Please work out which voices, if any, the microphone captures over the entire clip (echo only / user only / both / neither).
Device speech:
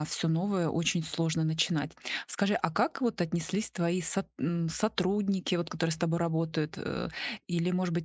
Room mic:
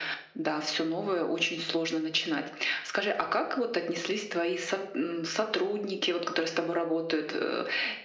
echo only